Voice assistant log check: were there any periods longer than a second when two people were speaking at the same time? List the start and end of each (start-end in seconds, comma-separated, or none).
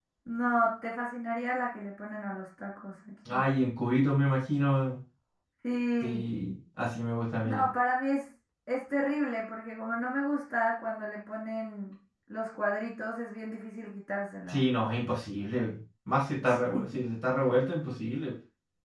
none